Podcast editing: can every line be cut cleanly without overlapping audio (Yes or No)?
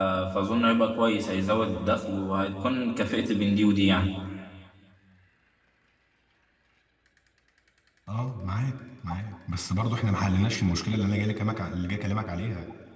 Yes